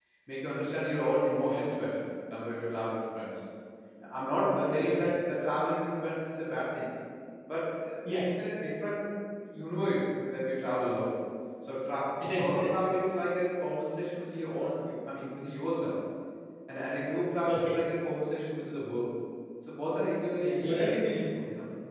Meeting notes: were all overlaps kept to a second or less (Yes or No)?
Yes